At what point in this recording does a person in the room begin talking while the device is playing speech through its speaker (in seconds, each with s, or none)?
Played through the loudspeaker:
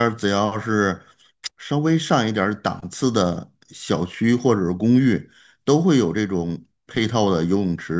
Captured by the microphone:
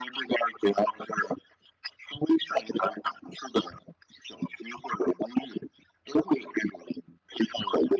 none